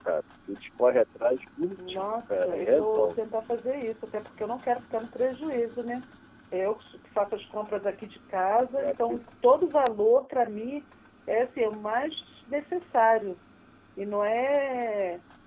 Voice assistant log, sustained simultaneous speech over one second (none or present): present